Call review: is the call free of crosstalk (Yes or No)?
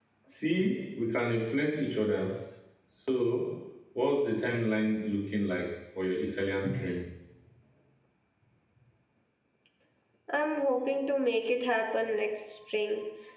Yes